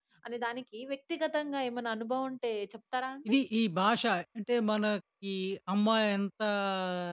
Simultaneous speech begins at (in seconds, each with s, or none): none